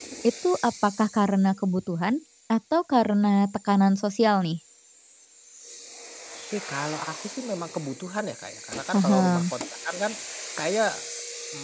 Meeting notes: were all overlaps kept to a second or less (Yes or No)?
Yes